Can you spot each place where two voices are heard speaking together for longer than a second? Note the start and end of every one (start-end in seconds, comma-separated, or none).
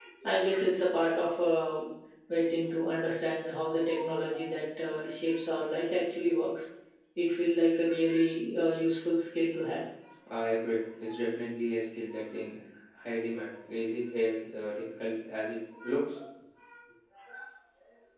none